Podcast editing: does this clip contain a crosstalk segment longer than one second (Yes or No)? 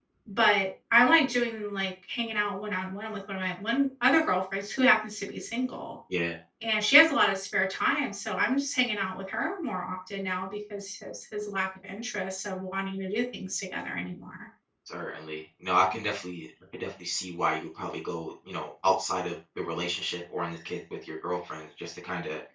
No